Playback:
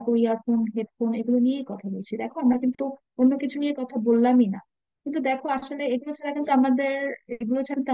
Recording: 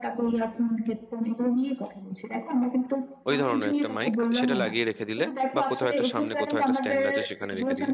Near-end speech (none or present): present